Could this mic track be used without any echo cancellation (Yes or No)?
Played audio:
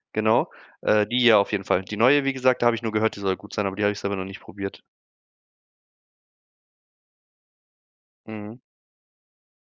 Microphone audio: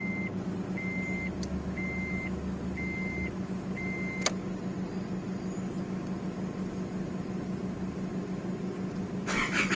Yes